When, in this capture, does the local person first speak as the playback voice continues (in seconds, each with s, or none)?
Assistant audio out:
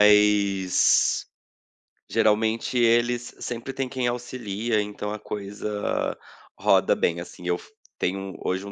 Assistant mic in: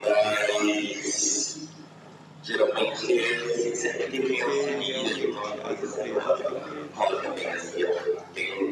4.2 s